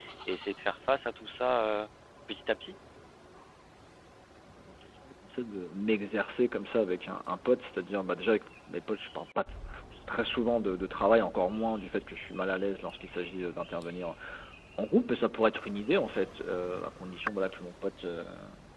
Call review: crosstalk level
none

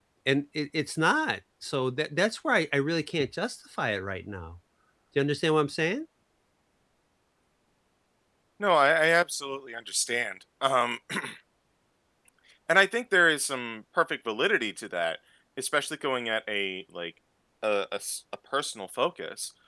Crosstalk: none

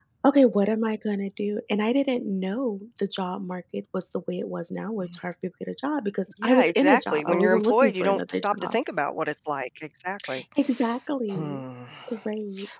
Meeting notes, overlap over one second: present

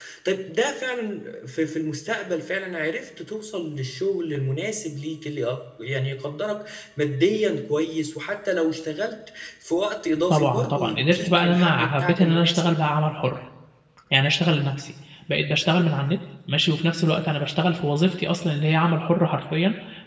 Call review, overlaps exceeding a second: present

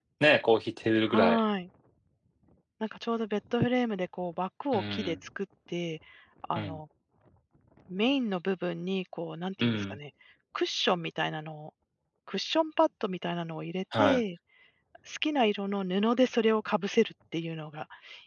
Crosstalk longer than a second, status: none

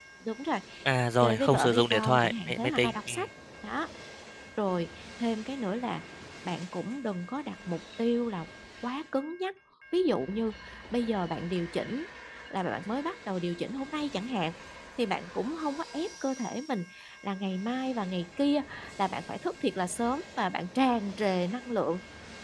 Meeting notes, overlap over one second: present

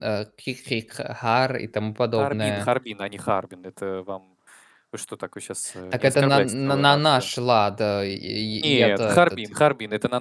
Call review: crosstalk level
present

